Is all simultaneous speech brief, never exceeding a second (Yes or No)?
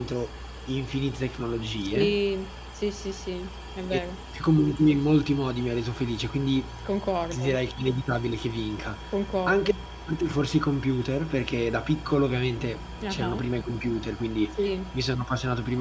Yes